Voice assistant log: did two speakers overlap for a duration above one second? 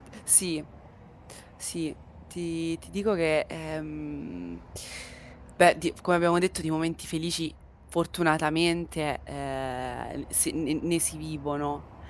No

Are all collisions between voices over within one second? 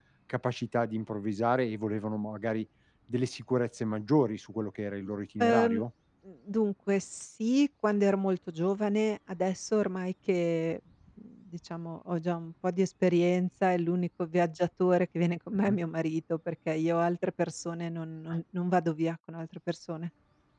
Yes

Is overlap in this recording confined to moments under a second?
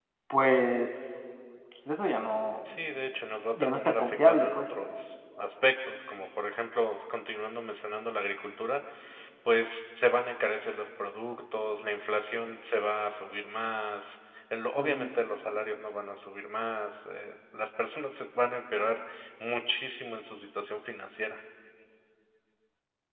No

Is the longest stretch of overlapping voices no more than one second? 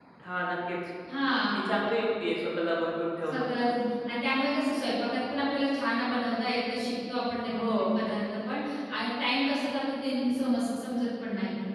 Yes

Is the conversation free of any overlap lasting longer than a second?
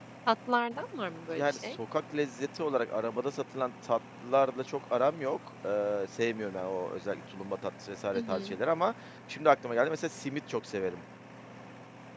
Yes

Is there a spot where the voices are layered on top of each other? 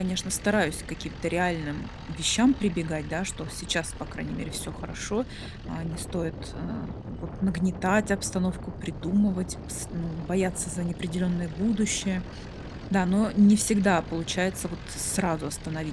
No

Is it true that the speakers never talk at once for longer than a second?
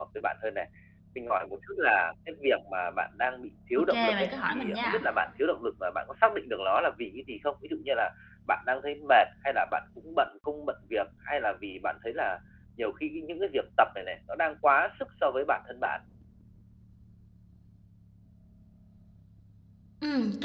No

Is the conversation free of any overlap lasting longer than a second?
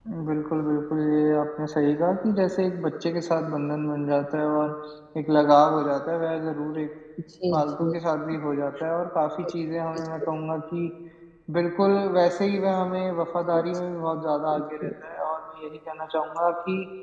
Yes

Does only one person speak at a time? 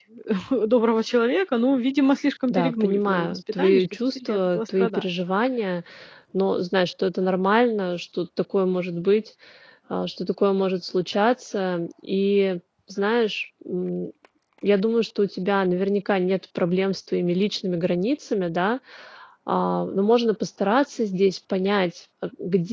No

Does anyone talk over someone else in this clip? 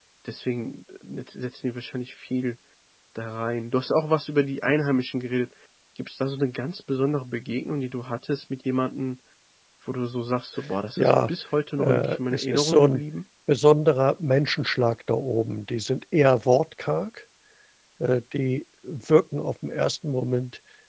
Yes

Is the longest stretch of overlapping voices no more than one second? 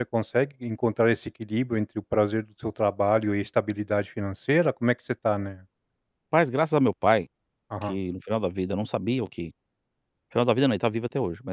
Yes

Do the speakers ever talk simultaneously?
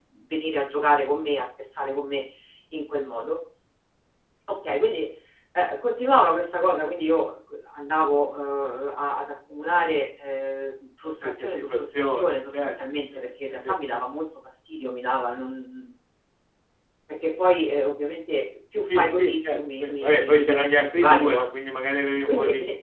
Yes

